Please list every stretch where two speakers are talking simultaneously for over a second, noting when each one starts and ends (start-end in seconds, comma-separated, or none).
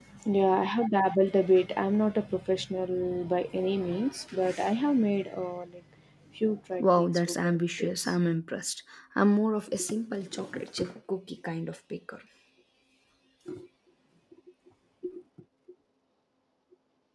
6.8-8.2